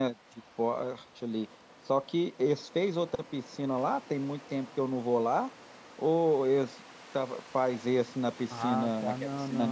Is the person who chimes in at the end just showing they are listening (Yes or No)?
No